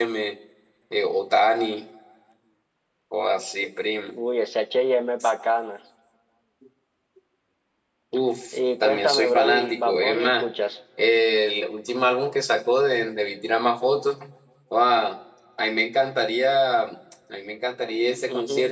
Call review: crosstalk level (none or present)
present